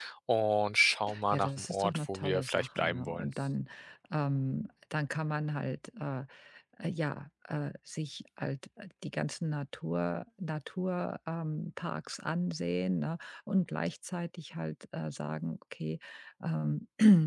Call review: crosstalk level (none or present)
present